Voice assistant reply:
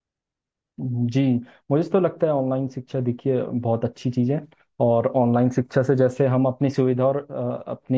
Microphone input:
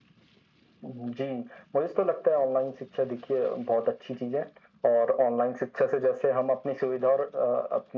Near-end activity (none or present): none